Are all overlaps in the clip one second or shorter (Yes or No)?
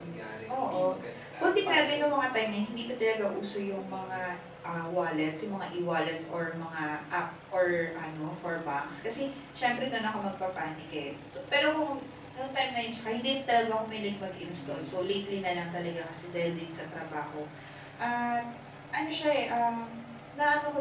No